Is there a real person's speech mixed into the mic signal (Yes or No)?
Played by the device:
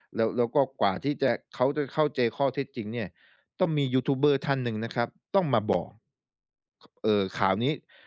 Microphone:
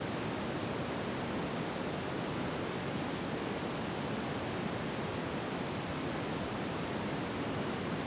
No